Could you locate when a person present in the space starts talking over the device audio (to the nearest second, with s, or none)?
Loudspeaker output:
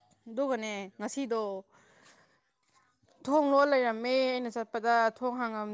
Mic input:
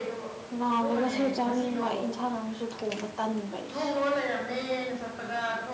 1 s